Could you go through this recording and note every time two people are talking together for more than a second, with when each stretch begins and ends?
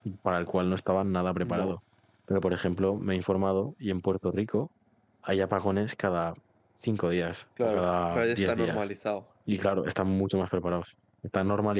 7.6-8.8

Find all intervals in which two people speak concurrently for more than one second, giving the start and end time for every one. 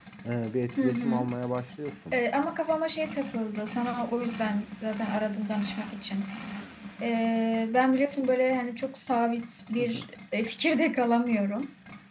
none

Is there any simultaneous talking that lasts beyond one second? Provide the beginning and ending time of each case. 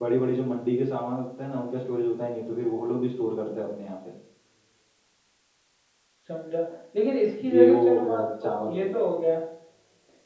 7.5-8.9

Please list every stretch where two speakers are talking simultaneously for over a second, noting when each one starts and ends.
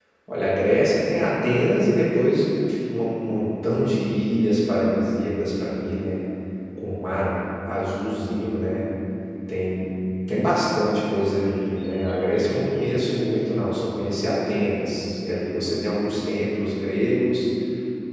none

